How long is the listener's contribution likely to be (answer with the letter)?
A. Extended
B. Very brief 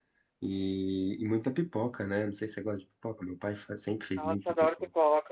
A